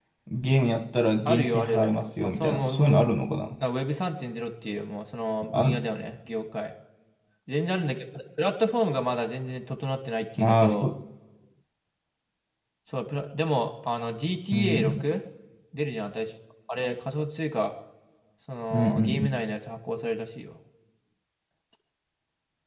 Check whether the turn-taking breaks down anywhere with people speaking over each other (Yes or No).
Yes